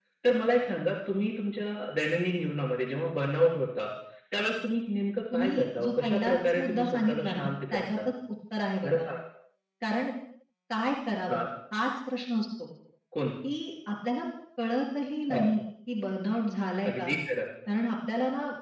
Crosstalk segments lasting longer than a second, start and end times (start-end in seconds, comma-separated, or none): 5.3-8.0